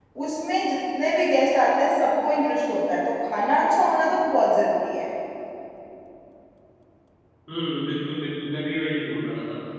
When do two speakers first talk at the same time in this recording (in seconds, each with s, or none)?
none